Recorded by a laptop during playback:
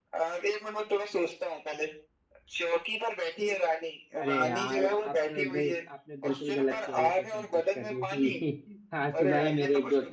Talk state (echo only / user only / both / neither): both